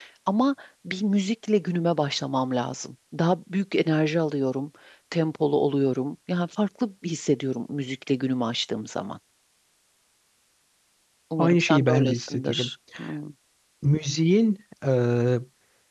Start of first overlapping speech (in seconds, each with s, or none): 11.4 s